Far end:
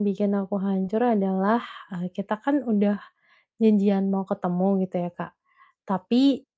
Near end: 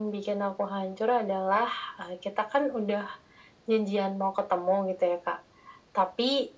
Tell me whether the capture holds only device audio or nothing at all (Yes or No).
Yes